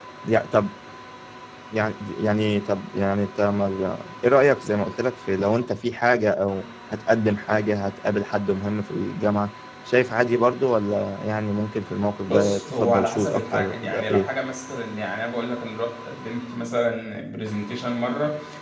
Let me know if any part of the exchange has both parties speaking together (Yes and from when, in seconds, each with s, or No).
Yes, from 12.2 s